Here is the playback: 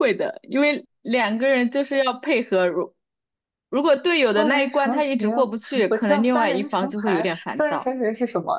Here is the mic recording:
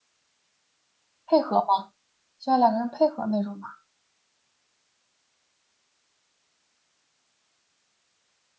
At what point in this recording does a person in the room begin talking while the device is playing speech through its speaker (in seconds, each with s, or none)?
1.2 s